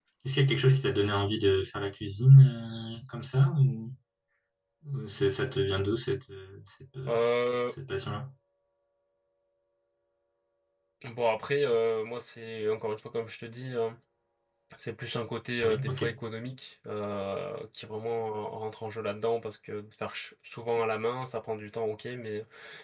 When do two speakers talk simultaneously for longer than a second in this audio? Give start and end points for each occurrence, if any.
none

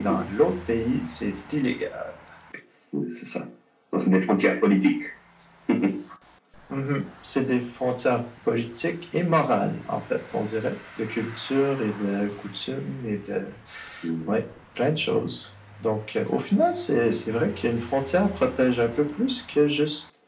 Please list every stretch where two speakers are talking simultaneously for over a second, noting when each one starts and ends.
none

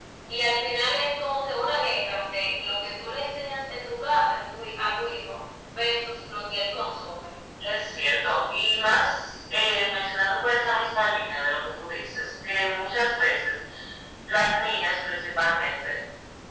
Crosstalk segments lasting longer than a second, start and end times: none

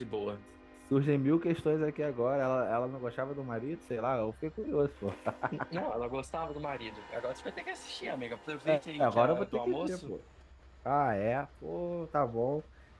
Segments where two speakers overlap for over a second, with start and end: 8.7-10.1

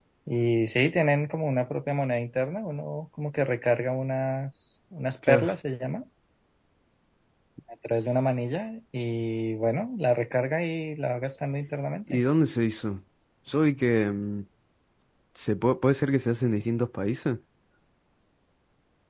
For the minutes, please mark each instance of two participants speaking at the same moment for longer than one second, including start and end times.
none

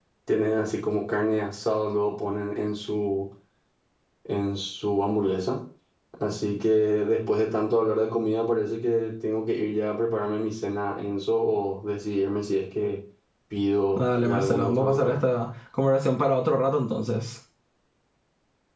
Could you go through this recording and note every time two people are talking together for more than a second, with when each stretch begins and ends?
14.0-15.2

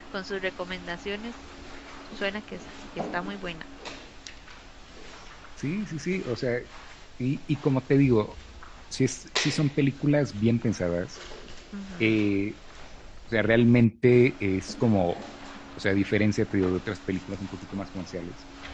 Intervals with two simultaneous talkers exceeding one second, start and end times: none

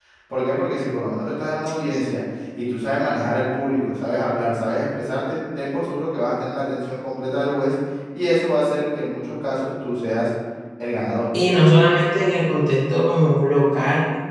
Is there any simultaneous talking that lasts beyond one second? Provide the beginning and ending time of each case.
none

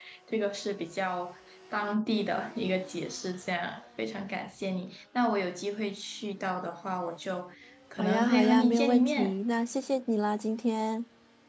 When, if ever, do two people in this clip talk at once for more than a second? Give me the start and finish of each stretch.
8.0-9.3

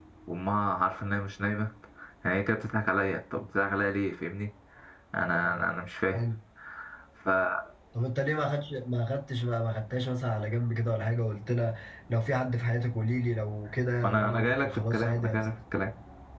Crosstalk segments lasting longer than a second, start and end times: 14.0-15.4

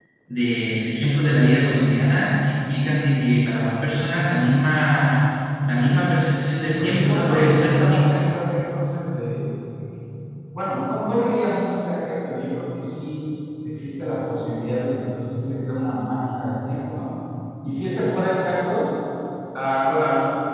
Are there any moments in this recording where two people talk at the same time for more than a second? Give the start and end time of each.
6.7-8.2

